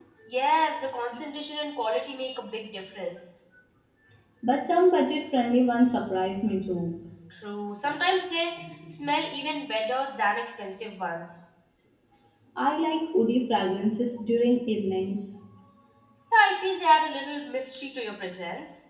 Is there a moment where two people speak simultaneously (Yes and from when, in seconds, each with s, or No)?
No